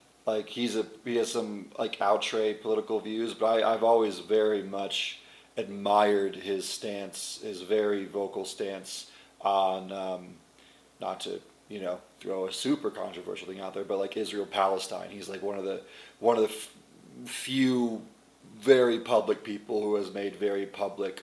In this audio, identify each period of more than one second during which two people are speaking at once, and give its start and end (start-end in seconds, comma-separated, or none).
none